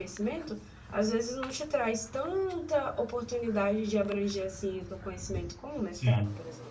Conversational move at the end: taking over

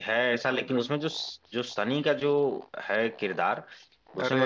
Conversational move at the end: listening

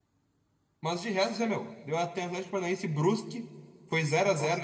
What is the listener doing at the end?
listening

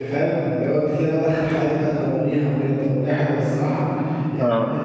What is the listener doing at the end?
listening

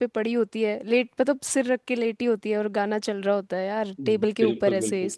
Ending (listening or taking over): taking over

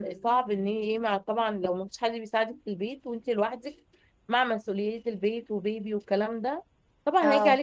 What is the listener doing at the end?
listening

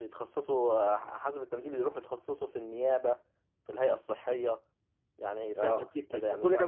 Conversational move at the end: taking over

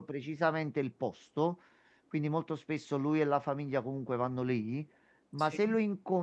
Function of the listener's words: listening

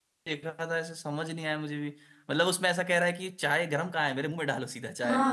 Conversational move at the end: taking over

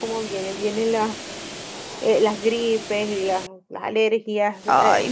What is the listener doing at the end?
taking over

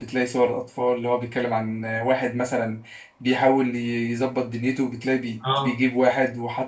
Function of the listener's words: listening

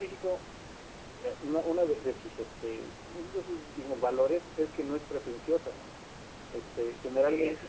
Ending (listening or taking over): listening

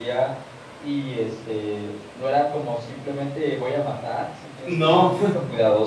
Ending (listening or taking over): listening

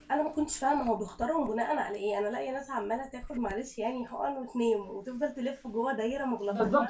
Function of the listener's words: taking over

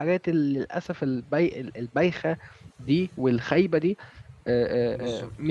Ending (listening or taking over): listening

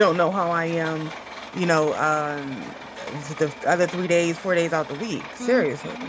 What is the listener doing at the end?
taking over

